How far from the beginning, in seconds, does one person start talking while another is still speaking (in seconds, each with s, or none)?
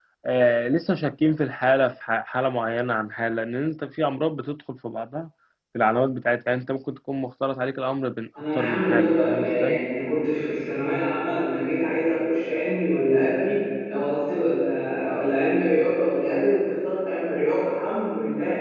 8.3 s